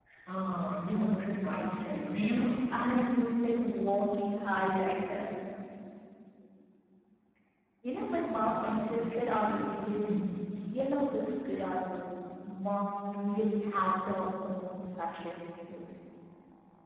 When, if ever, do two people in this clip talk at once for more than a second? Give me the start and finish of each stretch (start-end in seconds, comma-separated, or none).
0.9-3.2, 8.5-9.9